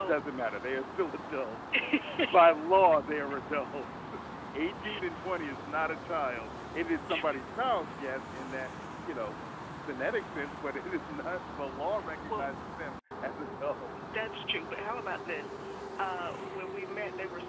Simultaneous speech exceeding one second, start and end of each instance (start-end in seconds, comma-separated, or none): none